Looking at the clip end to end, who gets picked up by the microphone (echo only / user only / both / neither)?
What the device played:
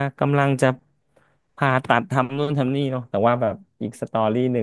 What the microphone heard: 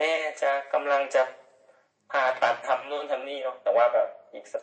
echo only